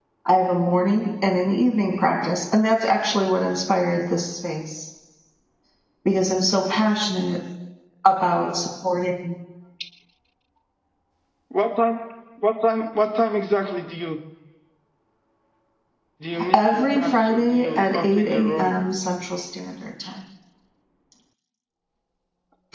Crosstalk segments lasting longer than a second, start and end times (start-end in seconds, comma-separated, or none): 16.5-18.7